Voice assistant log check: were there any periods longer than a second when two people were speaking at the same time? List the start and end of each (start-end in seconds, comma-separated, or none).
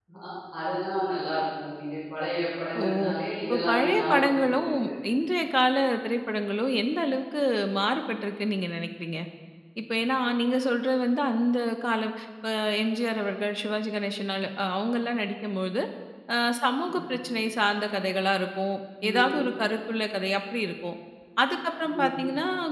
3.5-4.7